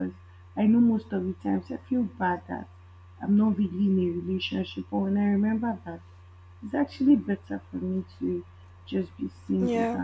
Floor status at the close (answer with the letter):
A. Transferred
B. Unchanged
B